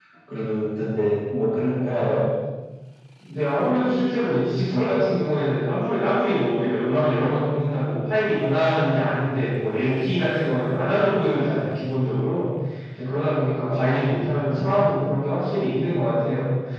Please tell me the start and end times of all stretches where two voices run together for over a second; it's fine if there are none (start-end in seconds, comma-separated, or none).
none